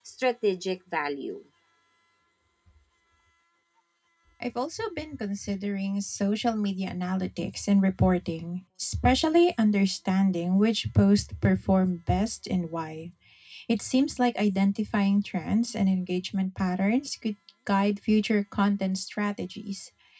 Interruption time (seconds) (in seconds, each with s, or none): none